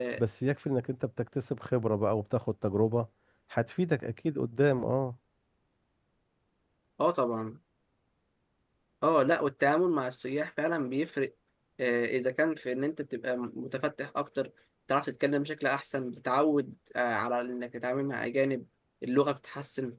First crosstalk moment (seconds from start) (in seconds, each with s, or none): none